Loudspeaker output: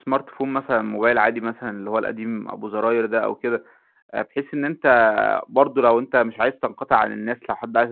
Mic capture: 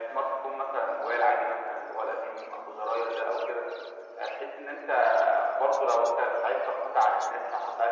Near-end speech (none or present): none